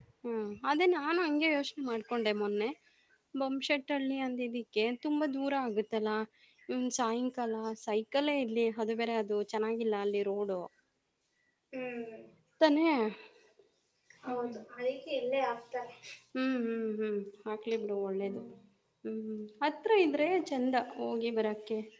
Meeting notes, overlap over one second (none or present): none